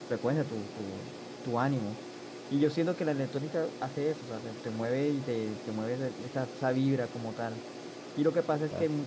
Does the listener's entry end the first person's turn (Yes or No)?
No